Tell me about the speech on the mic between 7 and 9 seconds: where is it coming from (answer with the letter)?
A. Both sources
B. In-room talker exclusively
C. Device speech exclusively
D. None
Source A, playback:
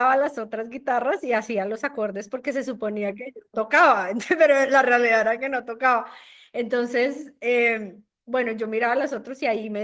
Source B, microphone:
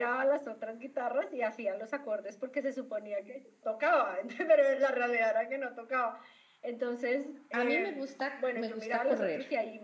A